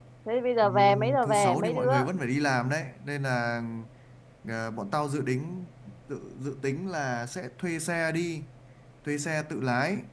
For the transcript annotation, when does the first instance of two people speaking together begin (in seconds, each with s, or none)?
0.6 s